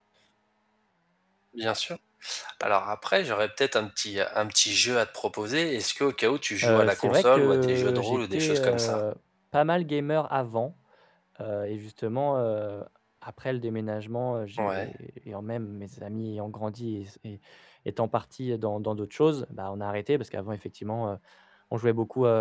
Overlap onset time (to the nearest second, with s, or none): 7 s